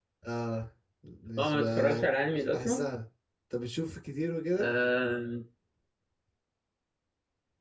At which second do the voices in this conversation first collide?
1 s

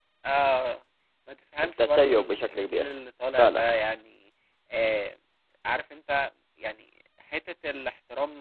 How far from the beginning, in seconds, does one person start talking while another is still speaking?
2 s

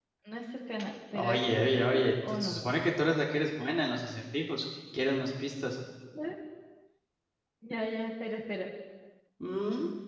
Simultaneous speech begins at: 1 s

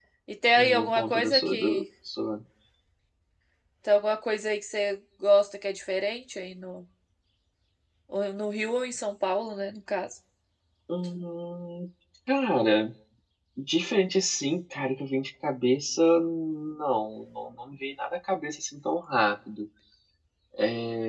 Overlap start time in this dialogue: 1 s

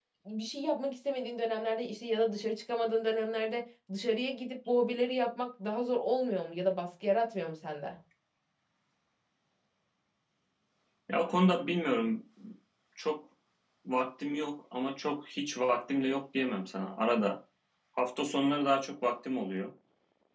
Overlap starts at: none

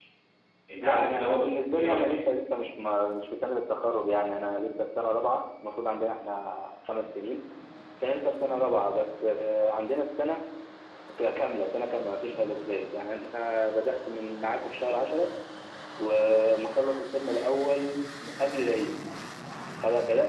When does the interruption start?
1 s

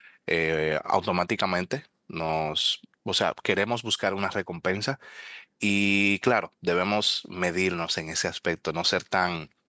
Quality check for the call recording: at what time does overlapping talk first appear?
none

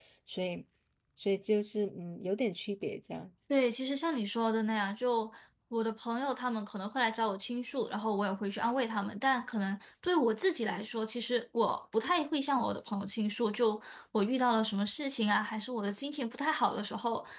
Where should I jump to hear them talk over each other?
none

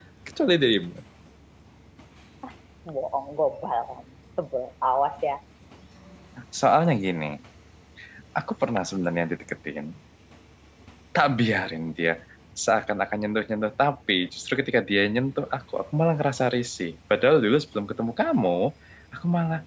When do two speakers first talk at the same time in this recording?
none

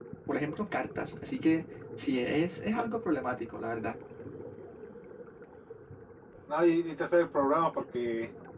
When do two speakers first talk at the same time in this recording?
none

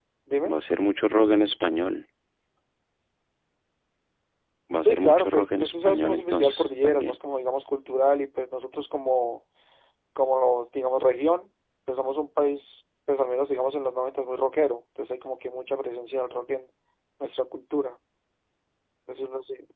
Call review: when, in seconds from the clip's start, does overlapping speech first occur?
5 s

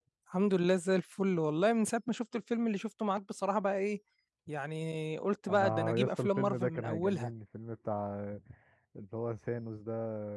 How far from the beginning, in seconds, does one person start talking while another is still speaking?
5 s

